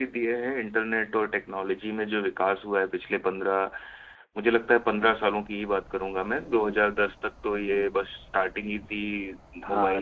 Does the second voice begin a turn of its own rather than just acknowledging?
Yes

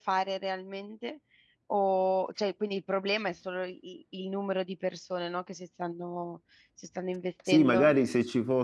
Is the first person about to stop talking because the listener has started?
Yes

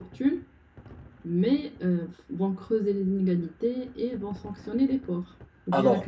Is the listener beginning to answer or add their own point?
Yes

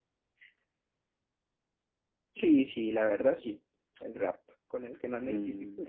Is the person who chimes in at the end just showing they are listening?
No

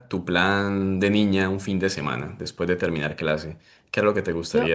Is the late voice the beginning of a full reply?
Yes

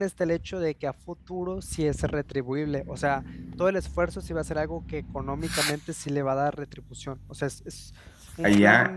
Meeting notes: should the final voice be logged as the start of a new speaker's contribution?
Yes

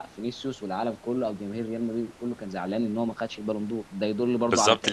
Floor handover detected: Yes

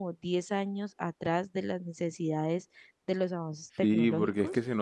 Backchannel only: No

